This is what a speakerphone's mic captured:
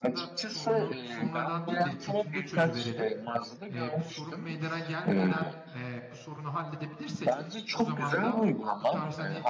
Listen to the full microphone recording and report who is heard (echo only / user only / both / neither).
both